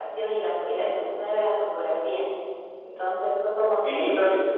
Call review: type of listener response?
taking over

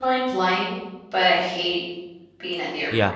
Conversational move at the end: taking over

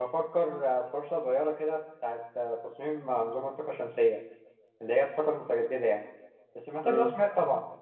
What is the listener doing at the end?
listening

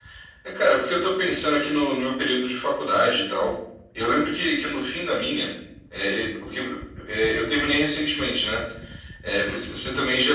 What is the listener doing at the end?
listening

